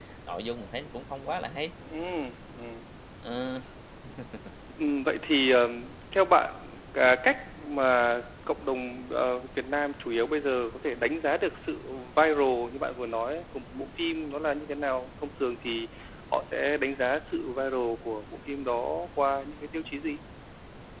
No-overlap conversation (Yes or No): Yes